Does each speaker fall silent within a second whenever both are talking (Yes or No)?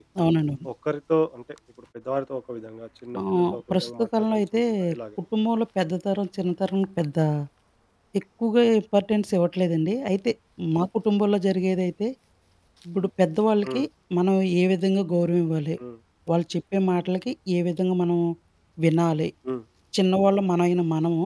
No